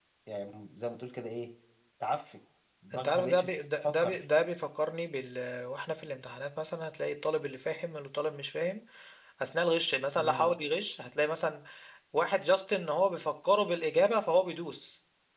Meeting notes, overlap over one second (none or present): present